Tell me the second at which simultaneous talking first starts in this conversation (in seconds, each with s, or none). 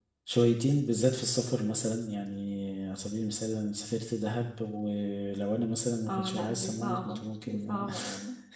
6.1 s